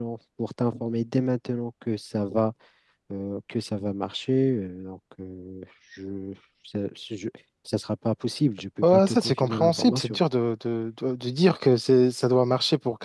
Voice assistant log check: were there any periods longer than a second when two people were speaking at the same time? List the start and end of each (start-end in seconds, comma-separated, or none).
8.9-10.2